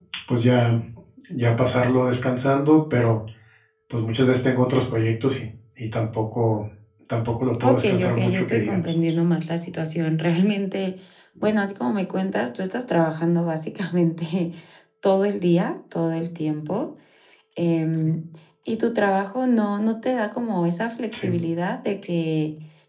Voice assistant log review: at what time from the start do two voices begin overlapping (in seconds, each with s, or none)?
7.6 s